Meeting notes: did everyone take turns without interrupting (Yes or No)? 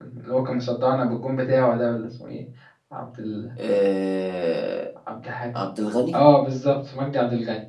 Yes